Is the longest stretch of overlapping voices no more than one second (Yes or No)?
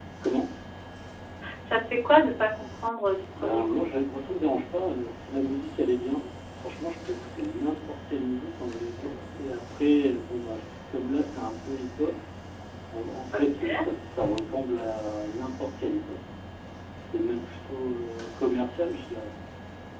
Yes